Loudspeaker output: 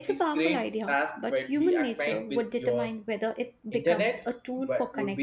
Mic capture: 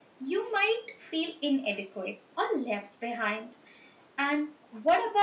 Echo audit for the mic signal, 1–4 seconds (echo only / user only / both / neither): user only